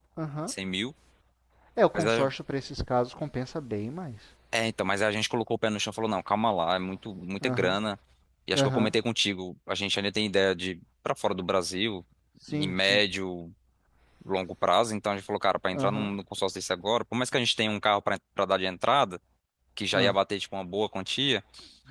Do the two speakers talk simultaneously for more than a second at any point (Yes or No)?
No